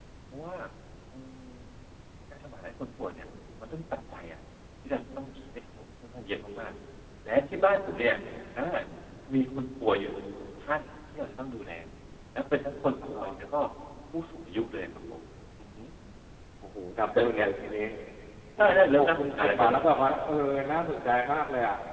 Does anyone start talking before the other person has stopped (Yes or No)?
Yes